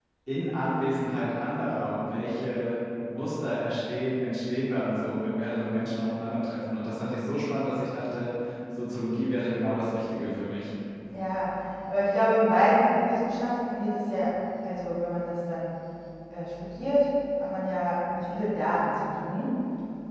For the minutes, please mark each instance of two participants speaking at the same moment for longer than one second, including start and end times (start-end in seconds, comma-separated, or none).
none